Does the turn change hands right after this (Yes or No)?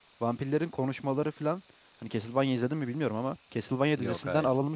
No